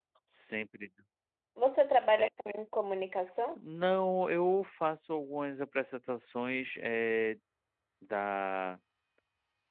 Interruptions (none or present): none